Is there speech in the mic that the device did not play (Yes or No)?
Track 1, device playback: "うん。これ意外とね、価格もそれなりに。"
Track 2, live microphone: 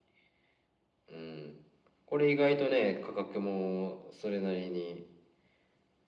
No